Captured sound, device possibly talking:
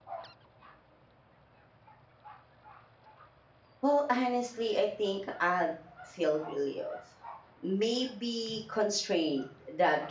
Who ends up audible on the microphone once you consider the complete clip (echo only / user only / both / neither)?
user only